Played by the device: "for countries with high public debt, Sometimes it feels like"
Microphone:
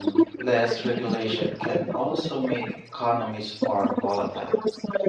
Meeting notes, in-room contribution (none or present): present